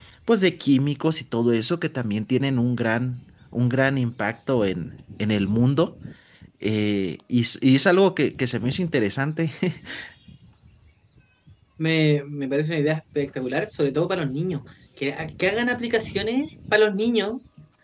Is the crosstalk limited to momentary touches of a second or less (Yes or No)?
Yes